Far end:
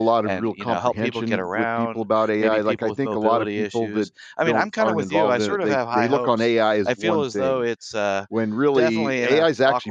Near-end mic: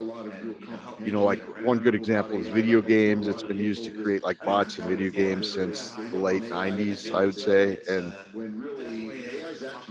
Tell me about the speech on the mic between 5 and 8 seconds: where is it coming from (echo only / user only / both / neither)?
both